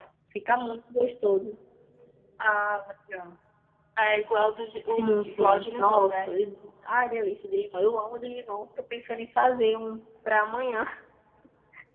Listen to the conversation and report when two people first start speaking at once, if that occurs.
5 s

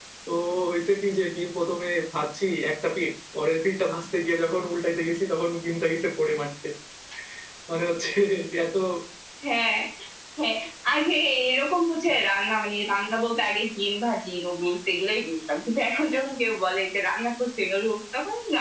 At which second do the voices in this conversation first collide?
none

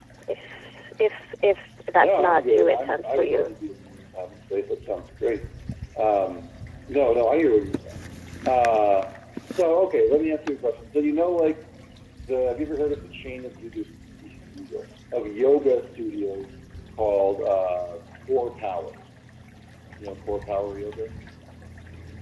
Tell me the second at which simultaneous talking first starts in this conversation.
2 s

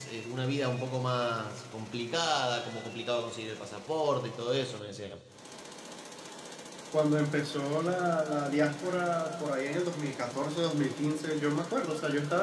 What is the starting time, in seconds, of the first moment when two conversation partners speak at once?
none

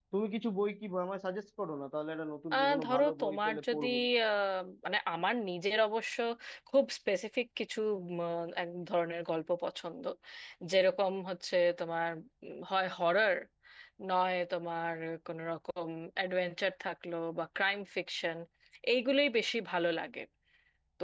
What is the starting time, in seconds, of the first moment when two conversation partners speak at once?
3 s

